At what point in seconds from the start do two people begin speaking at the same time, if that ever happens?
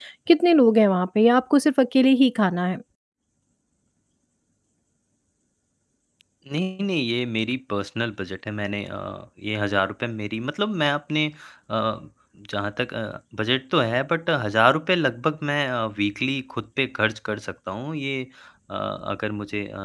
none

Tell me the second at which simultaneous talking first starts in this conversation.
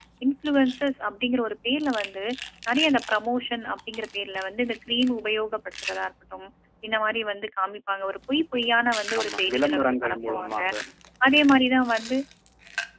9.1 s

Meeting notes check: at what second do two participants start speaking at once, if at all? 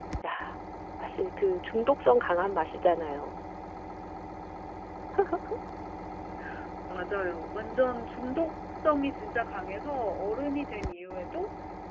none

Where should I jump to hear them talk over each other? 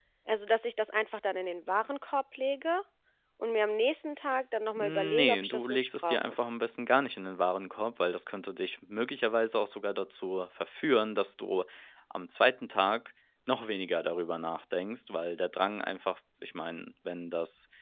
4.8 s

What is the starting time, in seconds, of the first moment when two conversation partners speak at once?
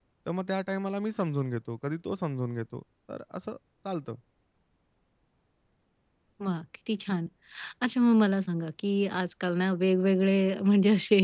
none

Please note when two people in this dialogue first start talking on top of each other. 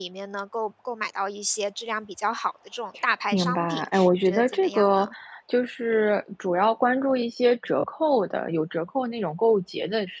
3.3 s

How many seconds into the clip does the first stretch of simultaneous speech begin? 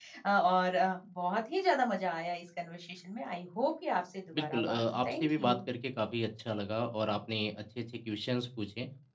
4.3 s

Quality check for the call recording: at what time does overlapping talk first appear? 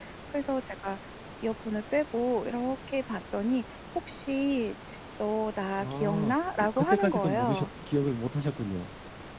5.8 s

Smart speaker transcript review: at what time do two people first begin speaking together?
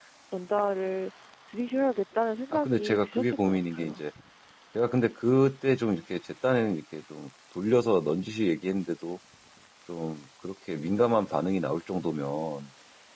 2.5 s

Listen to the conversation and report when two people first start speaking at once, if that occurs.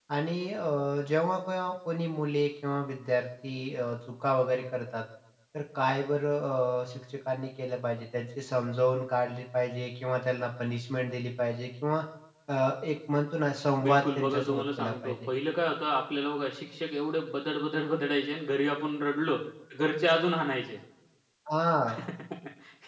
13.8 s

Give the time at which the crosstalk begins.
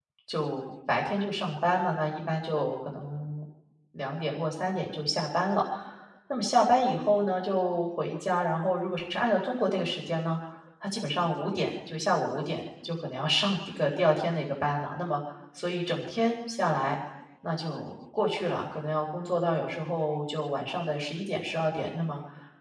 none

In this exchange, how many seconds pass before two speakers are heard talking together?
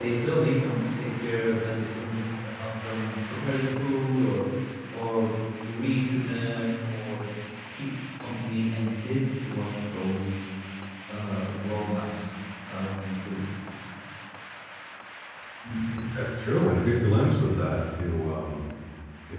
none

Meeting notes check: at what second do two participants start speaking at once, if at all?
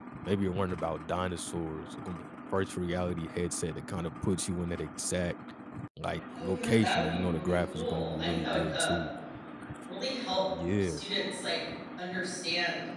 6.3 s

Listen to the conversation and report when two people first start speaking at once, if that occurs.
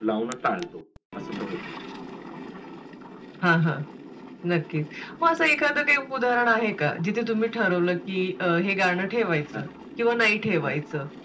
none

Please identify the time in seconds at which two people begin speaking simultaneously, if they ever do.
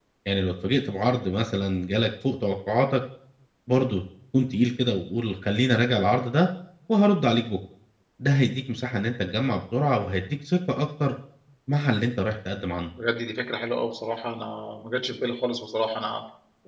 none

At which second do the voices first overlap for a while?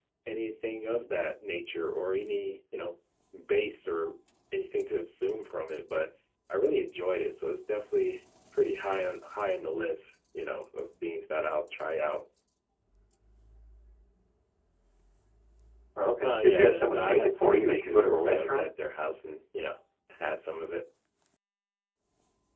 16.2 s

